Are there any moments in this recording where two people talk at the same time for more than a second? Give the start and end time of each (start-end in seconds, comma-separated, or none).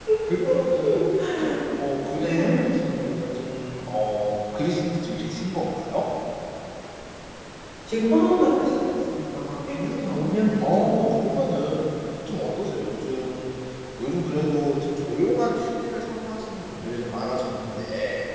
10.0-11.3